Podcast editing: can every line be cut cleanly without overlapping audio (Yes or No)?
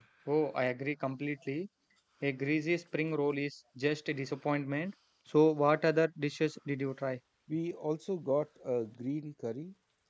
Yes